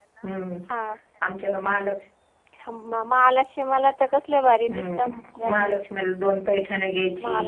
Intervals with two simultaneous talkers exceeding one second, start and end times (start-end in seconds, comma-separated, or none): none